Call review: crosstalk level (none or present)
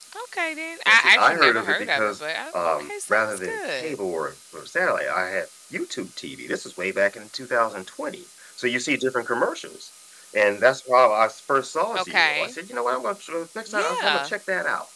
present